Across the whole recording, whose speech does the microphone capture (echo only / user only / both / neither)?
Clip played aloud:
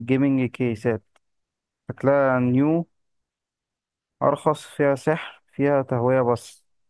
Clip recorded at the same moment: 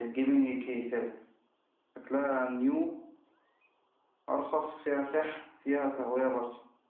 echo only